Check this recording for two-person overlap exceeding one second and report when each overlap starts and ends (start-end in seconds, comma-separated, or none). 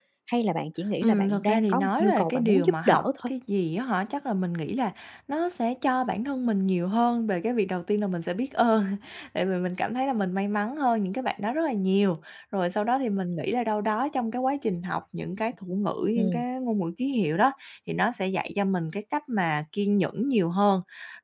1.0-3.3